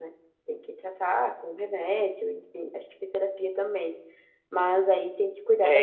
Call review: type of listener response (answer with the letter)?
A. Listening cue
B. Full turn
B